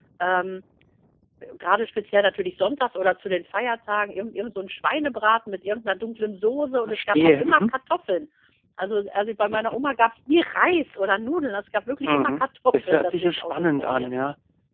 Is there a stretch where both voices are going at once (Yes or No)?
Yes